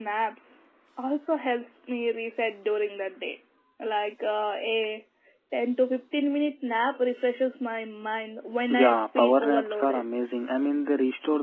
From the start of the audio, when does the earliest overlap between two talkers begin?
8.7 s

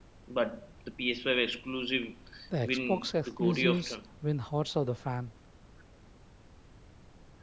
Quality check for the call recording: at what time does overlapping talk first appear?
2.6 s

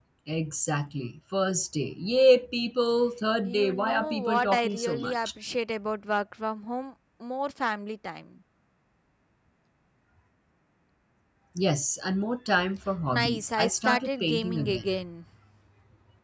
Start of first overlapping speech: 3.4 s

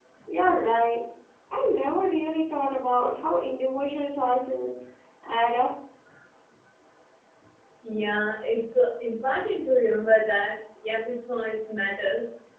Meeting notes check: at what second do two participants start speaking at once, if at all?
none

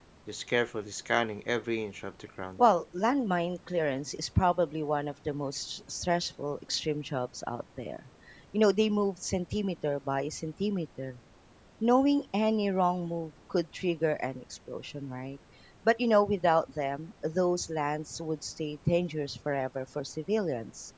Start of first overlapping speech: none

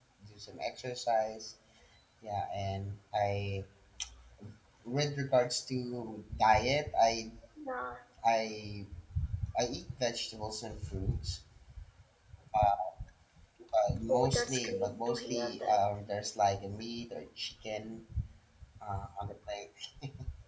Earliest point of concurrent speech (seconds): 14.1 s

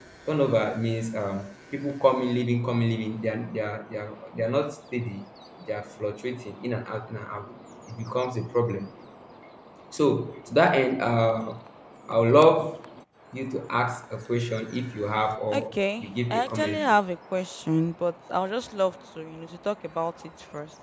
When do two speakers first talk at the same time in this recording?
15.5 s

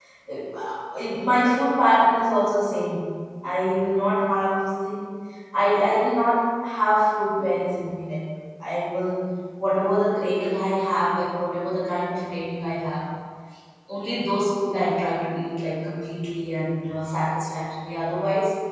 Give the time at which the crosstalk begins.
none

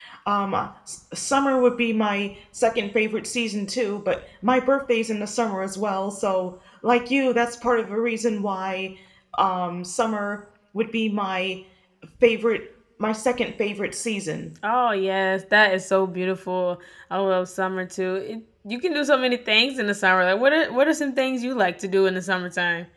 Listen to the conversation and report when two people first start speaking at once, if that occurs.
none

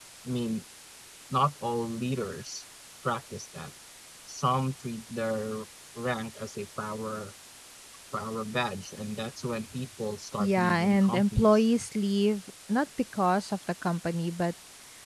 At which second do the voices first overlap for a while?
10.4 s

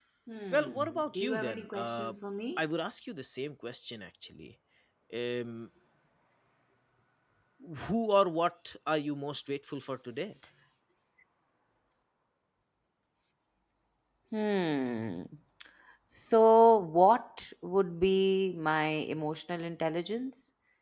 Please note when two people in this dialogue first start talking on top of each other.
0.5 s

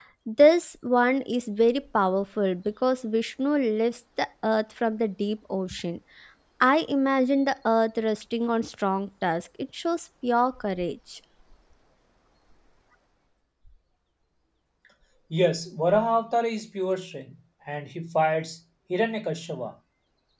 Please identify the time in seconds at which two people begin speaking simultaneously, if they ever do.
none

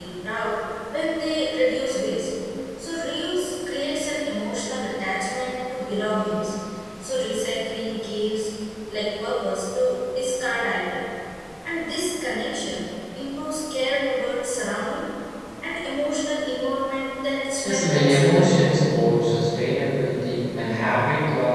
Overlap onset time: 17.6 s

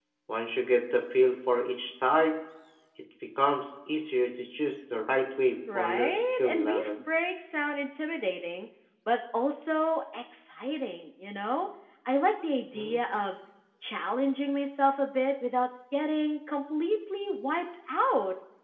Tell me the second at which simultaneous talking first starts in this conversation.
5.7 s

